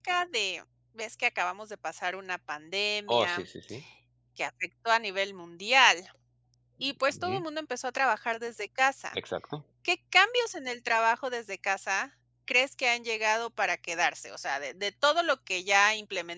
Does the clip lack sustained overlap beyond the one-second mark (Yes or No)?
Yes